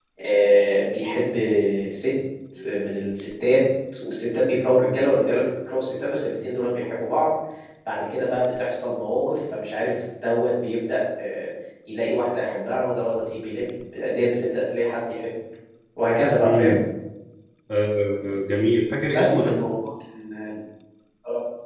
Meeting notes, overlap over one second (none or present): none